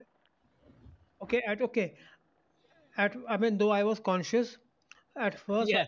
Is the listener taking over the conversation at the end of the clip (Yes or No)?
No